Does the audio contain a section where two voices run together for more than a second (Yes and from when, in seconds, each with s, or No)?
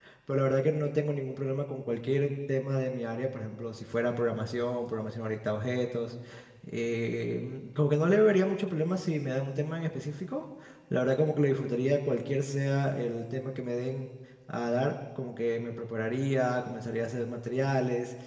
No